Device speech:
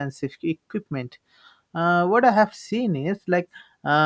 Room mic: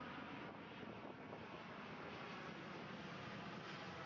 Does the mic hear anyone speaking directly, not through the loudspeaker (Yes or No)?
No